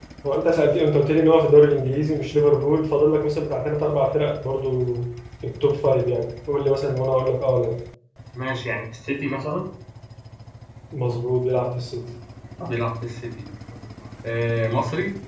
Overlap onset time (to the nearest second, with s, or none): none